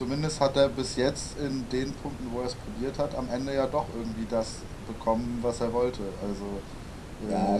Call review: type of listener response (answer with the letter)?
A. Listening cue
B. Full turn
B